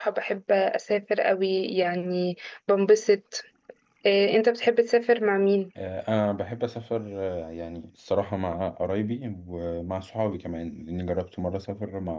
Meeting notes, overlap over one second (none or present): none